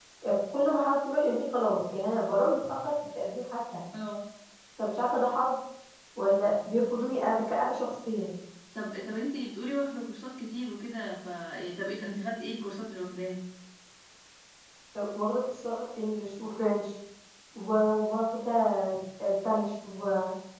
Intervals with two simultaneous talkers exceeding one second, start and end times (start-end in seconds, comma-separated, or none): none